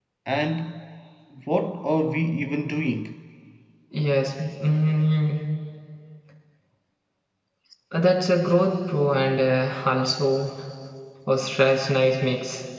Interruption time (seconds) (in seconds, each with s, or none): none